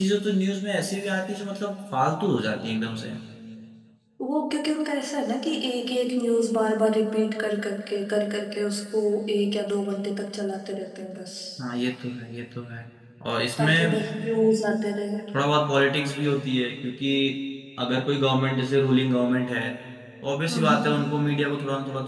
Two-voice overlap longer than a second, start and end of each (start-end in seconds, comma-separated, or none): none